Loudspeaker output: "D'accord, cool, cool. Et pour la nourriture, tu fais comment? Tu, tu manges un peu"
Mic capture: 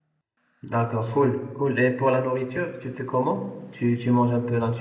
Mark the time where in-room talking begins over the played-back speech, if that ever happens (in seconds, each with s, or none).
none